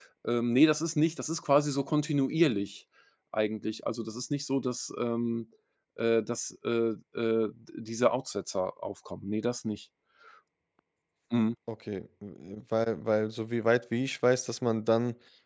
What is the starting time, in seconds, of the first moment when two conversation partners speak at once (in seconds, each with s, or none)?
none